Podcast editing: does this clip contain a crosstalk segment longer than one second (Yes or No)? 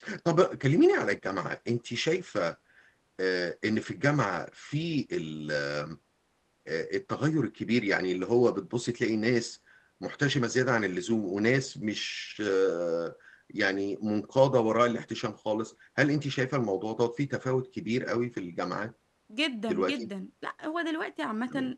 No